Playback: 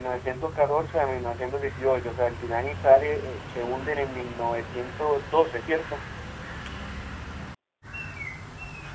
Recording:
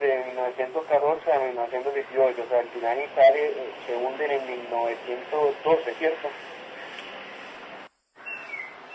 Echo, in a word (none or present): present